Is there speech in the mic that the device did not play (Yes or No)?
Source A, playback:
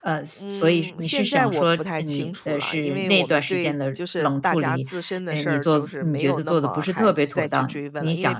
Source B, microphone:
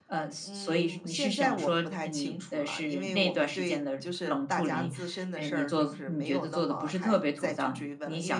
Yes